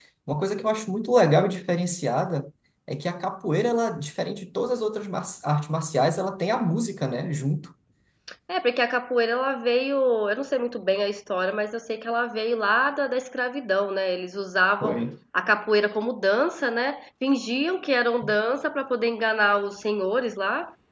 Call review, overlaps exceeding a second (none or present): none